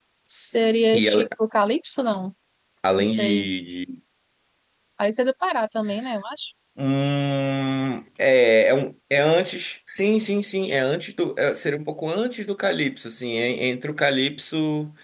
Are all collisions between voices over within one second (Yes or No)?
Yes